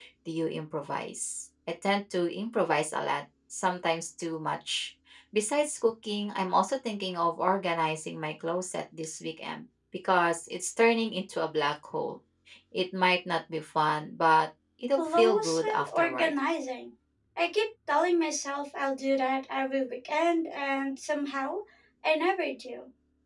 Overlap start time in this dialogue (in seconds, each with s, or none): 15.0 s